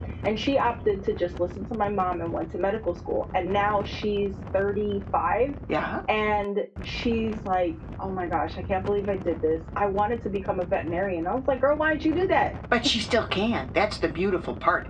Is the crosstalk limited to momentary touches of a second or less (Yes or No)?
Yes